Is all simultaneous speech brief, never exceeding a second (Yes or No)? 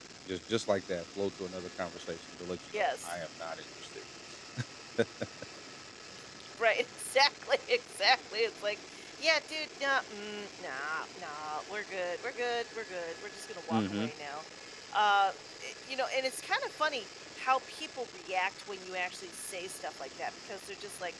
Yes